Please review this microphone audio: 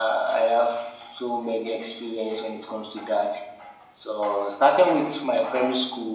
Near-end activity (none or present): none